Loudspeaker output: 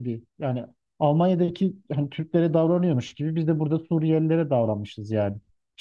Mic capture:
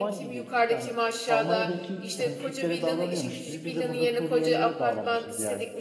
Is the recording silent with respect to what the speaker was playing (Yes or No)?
No